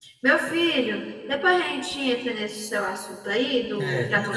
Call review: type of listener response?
taking over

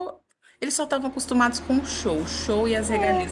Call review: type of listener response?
listening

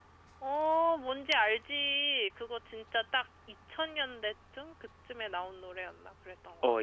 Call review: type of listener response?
taking over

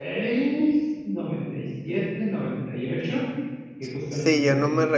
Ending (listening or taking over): taking over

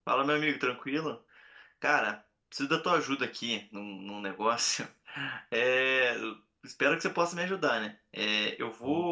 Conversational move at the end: listening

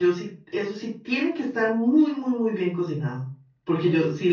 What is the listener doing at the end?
listening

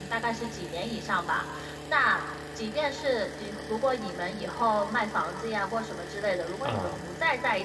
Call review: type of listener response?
listening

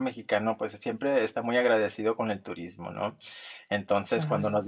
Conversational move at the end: listening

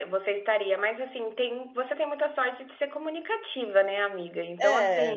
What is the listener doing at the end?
listening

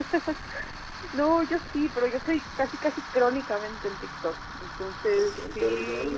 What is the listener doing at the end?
taking over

